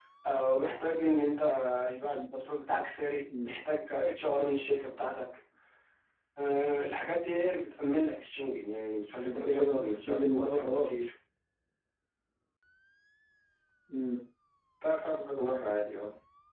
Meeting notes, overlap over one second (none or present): present